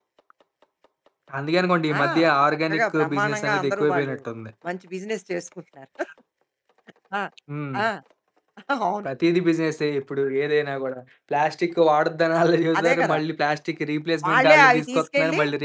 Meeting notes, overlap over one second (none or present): present